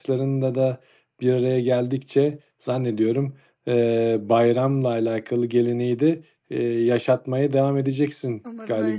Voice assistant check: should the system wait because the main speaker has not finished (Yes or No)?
No